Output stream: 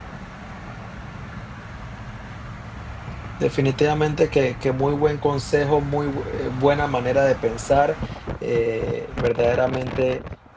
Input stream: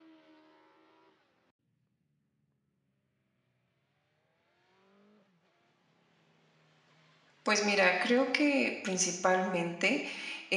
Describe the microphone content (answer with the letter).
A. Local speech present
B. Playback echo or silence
A